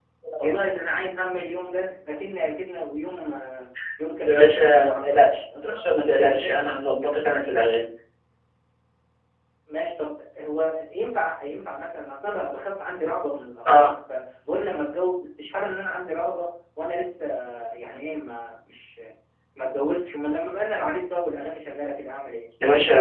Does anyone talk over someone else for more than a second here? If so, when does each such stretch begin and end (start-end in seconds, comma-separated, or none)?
4.2-6.7